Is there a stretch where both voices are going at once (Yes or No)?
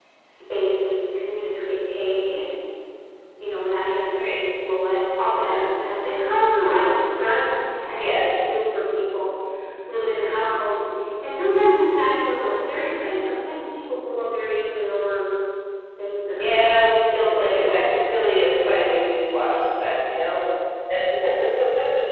Yes